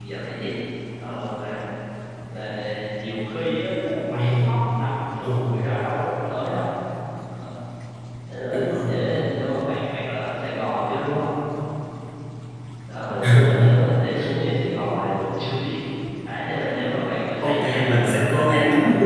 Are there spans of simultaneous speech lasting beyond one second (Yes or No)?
Yes